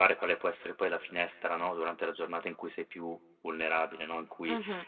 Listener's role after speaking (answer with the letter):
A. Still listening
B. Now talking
A